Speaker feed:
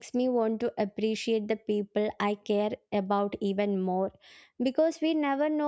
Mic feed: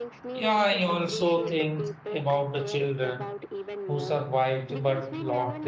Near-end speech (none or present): present